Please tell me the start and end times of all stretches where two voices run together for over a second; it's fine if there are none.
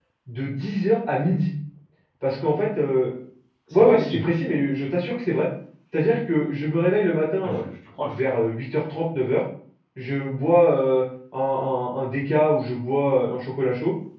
none

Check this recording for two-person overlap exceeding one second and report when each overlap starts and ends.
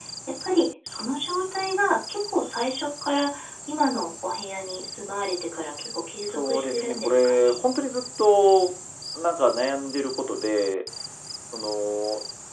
6.3-7.6

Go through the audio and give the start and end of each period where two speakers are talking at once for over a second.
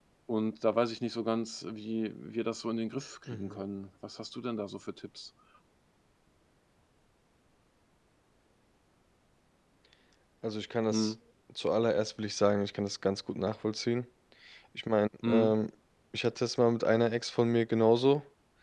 none

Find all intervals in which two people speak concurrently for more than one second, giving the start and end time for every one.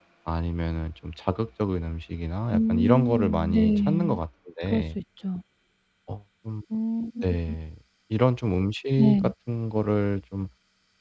2.5-4.2

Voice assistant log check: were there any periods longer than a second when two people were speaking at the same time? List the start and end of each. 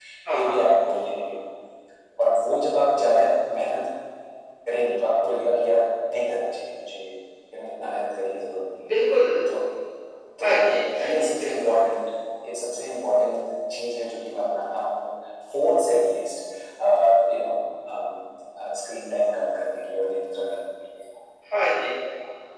10.4-11.8

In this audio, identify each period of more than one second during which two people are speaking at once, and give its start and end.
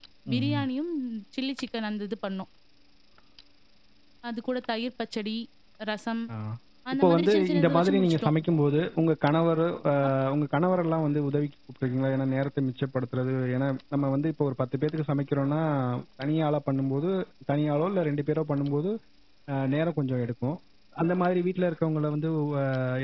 6.9-8.3

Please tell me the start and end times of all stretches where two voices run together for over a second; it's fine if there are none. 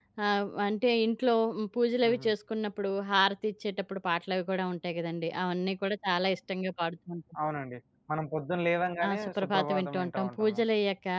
9.1-10.6

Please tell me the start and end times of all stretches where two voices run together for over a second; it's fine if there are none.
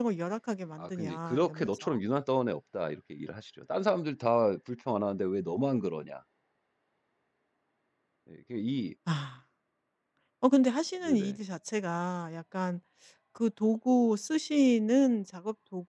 0.8-2.0

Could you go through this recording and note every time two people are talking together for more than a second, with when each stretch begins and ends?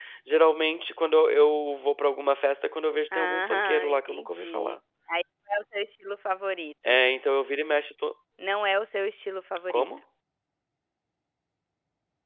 3.1-4.8

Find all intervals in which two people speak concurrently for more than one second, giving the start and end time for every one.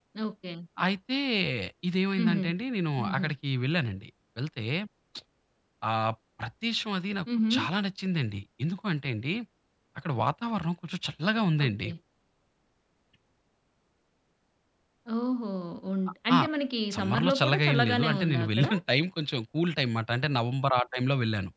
16.9-18.7

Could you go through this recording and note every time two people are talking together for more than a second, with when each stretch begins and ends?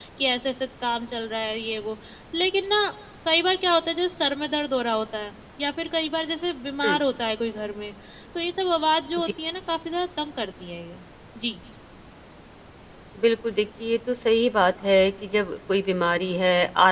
none

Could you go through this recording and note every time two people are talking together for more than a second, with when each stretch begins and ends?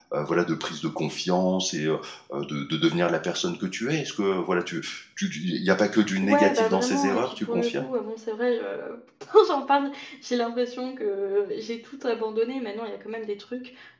6.2-7.9

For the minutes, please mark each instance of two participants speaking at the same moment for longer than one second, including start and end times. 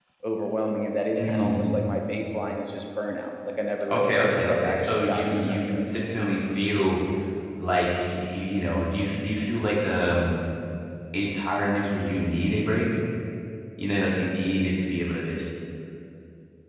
3.9-5.9

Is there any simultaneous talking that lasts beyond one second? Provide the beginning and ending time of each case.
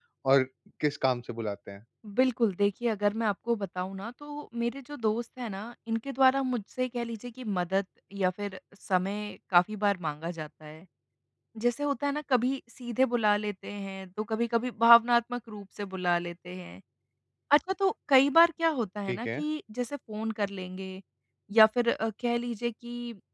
none

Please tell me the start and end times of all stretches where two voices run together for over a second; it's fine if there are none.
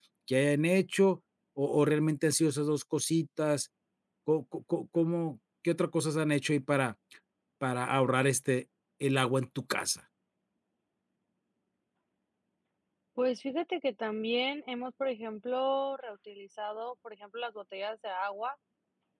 none

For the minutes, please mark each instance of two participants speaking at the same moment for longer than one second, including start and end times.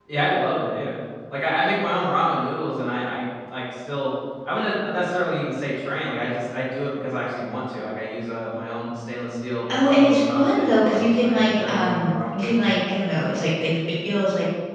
9.9-12.7

